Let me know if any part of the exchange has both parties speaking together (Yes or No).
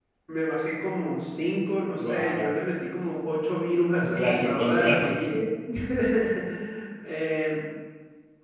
Yes